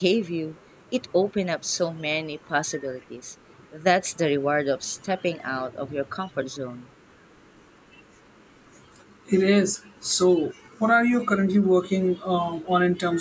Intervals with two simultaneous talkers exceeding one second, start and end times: none

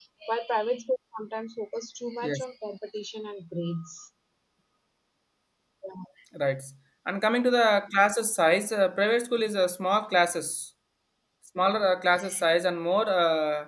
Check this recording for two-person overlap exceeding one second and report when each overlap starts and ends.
none

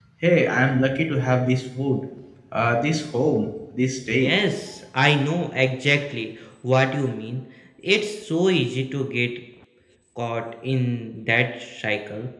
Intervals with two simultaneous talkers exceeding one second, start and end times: none

